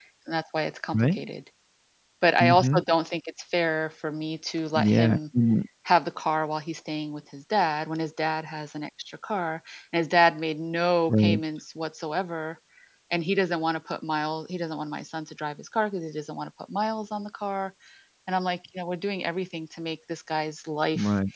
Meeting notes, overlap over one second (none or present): none